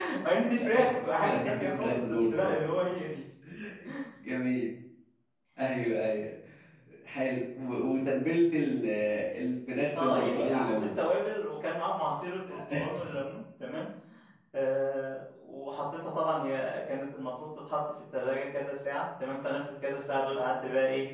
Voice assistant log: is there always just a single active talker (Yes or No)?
No